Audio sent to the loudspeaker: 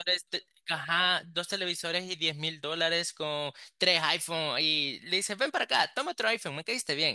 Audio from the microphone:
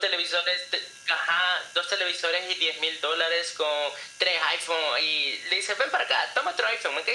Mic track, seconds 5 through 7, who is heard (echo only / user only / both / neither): echo only